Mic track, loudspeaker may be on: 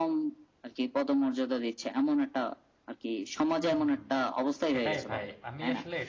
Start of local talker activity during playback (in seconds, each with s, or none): 3.6 s